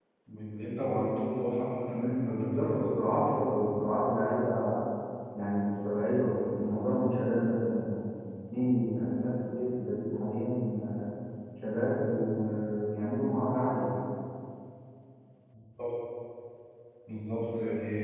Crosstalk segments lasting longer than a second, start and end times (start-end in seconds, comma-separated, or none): 1.9-3.3